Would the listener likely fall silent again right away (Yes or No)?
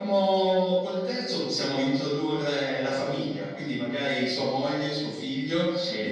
Yes